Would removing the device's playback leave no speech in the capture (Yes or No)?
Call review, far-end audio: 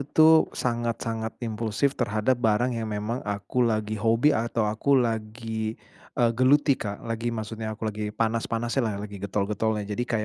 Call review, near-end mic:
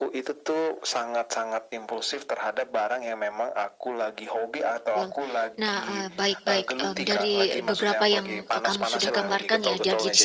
No